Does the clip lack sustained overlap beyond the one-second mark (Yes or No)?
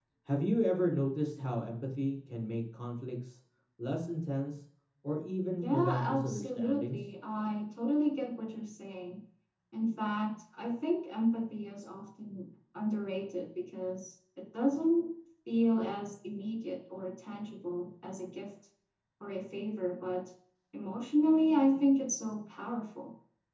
No